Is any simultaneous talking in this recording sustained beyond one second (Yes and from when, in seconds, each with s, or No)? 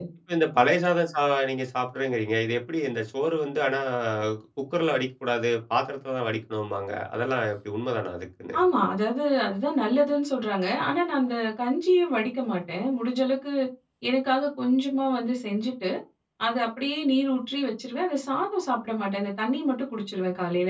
No